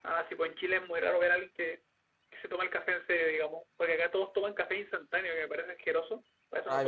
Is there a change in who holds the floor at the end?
Yes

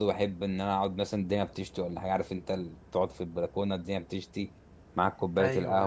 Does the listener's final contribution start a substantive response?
No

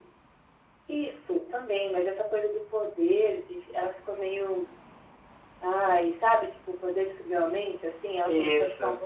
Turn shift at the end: No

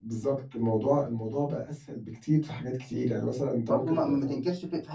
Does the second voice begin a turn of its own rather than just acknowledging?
Yes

